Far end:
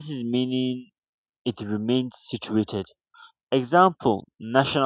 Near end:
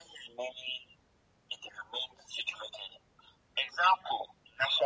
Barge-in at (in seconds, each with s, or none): none